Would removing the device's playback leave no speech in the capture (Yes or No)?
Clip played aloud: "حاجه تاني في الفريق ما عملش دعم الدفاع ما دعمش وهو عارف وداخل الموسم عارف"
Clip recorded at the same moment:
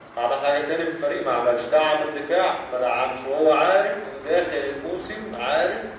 Yes